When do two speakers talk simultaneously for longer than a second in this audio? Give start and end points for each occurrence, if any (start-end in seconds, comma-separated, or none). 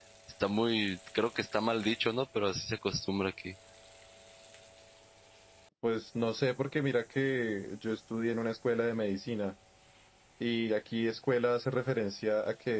none